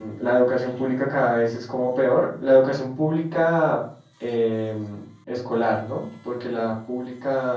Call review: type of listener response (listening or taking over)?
listening